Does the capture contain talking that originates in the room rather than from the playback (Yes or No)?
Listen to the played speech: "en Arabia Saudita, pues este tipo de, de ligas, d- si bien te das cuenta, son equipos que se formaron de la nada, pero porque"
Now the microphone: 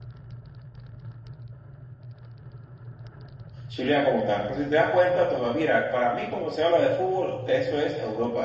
Yes